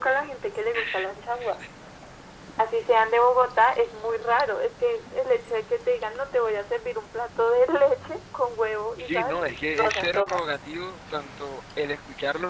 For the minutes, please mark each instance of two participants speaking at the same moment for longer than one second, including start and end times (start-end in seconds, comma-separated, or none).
9.0-10.4